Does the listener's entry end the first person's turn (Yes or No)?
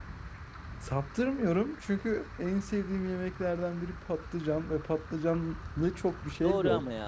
Yes